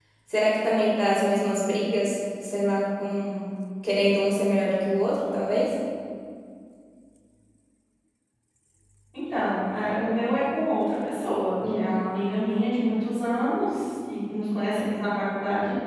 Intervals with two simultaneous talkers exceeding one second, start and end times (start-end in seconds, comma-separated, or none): none